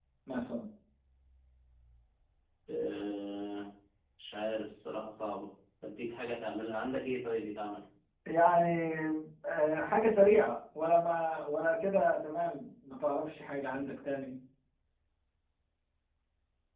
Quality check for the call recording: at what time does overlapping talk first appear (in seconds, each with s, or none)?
none